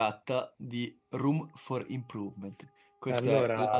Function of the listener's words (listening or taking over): listening